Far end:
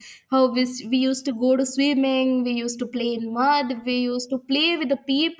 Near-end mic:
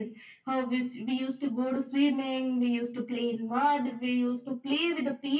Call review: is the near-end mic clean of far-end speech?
No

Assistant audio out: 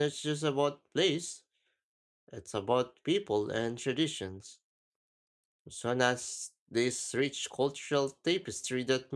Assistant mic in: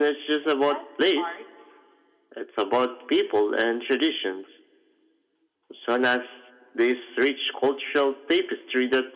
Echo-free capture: No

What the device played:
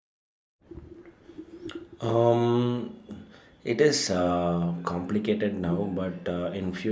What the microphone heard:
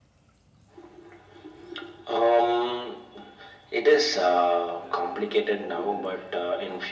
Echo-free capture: No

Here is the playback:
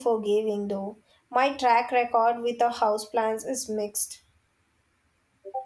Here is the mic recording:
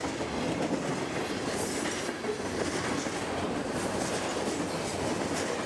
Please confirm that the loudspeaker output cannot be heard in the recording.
Yes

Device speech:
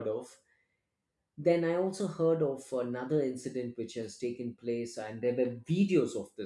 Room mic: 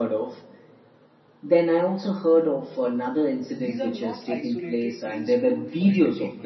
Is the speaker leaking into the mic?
Yes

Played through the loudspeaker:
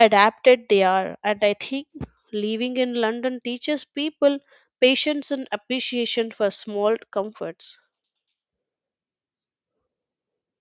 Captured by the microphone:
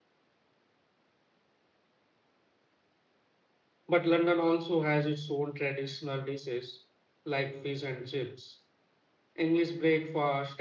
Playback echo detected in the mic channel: No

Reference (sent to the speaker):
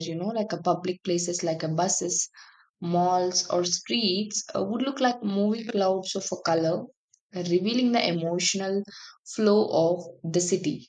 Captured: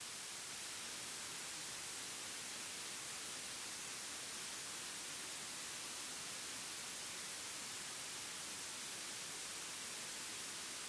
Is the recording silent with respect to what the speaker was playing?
Yes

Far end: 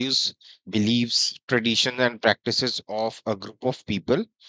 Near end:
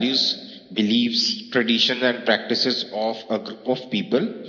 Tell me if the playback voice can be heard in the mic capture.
Yes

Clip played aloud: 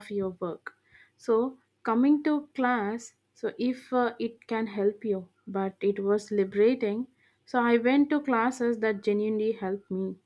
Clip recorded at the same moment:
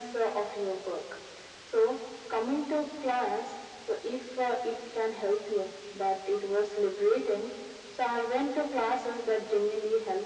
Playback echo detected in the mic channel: Yes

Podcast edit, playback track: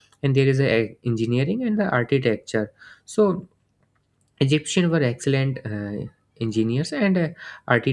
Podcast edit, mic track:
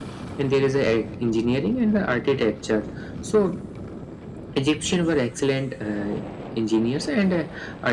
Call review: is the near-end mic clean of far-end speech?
No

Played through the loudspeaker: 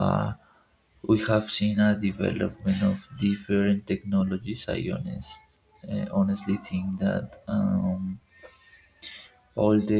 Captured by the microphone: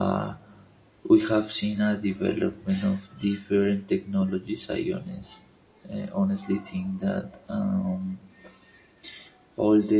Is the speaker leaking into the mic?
Yes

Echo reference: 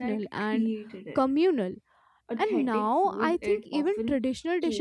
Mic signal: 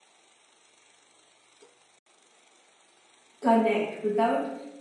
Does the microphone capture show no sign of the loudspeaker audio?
Yes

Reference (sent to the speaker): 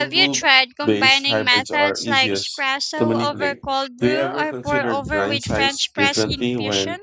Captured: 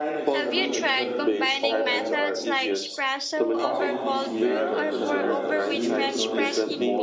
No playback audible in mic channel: No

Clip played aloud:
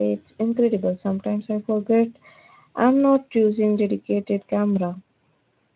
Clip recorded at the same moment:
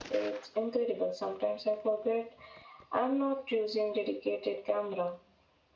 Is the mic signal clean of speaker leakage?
No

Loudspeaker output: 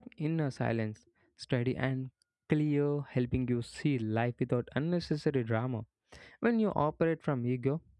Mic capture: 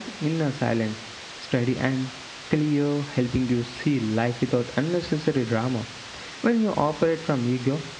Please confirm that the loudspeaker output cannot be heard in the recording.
No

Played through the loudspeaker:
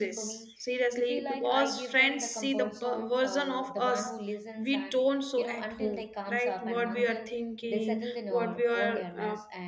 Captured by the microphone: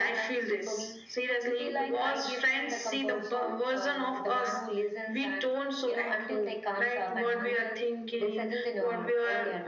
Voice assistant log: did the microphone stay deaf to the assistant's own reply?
No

